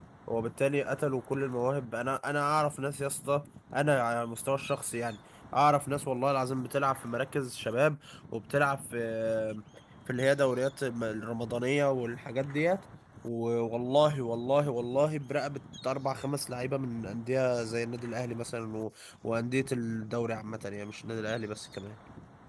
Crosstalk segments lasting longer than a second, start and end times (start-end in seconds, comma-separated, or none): none